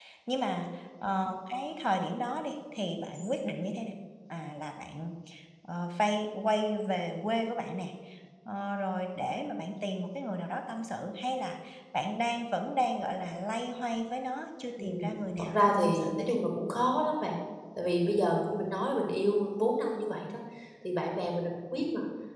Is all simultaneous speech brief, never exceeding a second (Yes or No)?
No